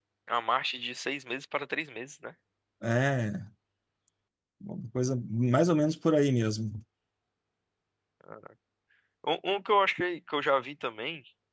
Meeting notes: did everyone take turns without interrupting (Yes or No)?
Yes